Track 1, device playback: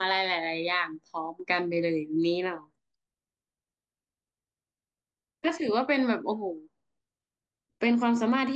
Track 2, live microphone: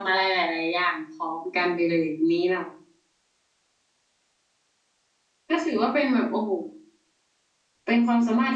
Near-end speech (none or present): none